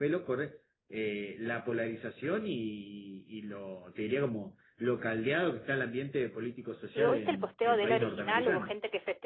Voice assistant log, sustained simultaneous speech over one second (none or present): present